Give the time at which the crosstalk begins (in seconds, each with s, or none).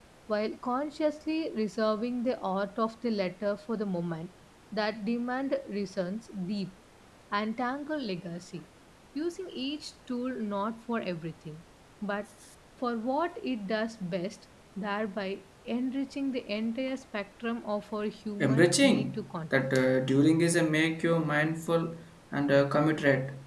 18.4 s